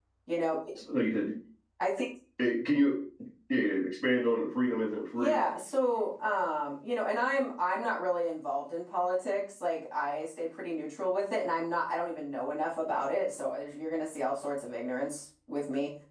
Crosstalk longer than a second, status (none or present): none